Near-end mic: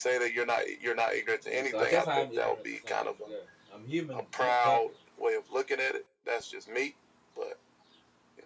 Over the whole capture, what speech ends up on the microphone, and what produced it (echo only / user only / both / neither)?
both